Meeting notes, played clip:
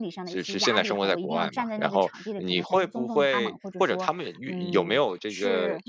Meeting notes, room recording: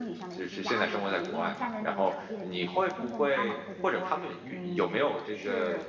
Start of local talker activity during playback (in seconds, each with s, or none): none